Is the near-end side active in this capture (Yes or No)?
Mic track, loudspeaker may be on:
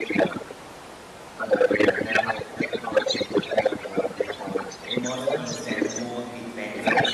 Yes